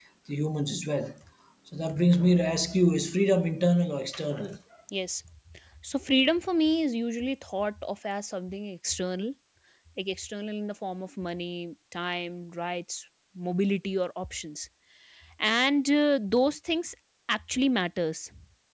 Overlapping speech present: No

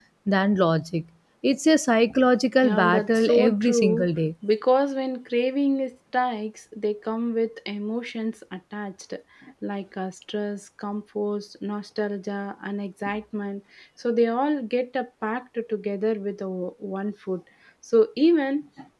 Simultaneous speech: Yes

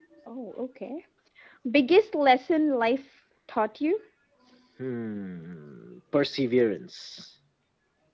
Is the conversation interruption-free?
Yes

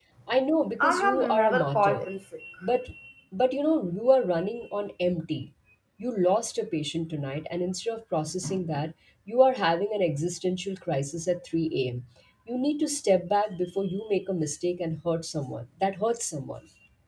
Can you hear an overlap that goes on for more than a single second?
Yes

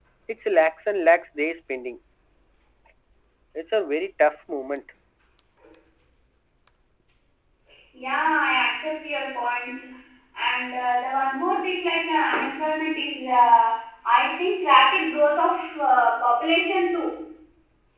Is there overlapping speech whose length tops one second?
No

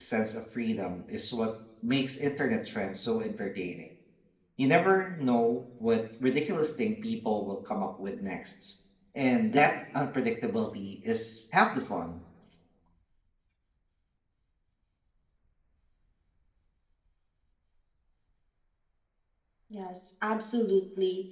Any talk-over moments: No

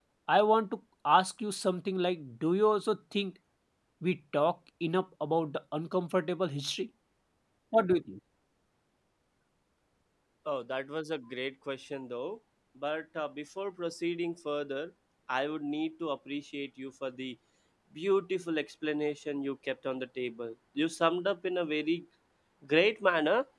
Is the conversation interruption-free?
Yes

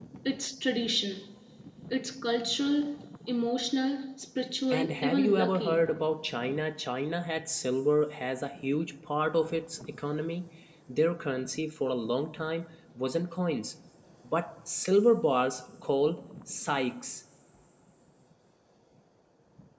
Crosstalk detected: Yes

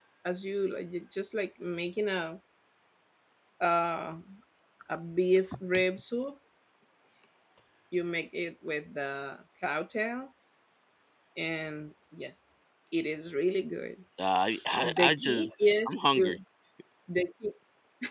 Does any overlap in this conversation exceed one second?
Yes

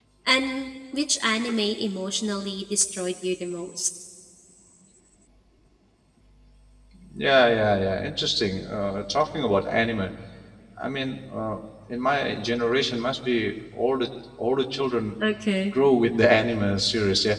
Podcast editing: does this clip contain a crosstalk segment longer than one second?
No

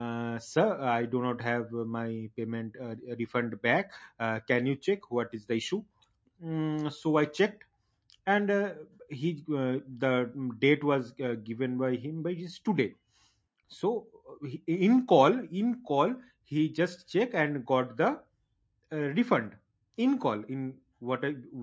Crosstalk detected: No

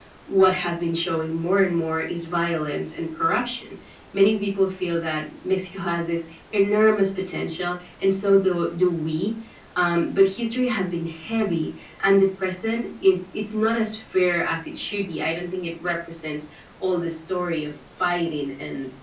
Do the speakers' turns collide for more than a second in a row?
No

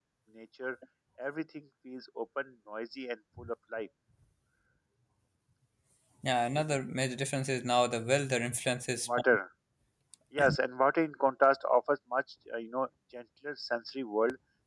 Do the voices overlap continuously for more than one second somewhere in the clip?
No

